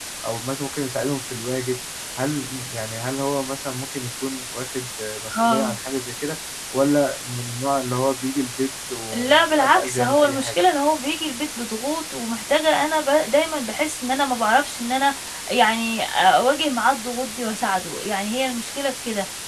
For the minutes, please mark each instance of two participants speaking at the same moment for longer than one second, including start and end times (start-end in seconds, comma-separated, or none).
9.1-10.7